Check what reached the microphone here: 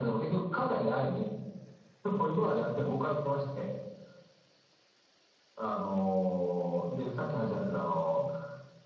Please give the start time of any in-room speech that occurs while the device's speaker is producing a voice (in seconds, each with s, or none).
none